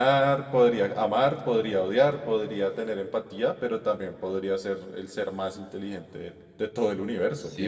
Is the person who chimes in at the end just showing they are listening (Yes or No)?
No